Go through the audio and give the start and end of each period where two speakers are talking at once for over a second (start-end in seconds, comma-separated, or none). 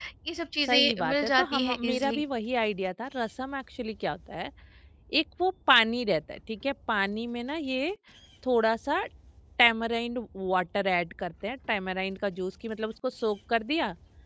0.7-2.2